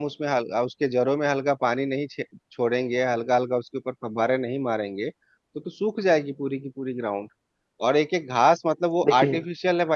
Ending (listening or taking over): listening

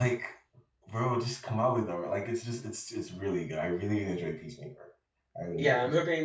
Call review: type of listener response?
taking over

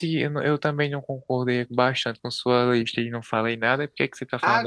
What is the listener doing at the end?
taking over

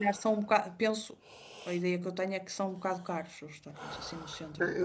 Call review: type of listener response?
taking over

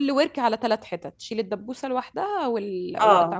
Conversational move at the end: taking over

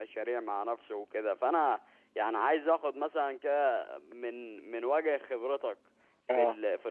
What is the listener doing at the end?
listening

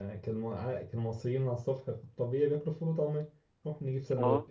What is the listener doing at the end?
listening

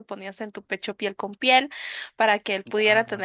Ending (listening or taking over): listening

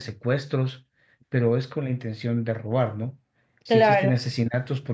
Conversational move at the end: listening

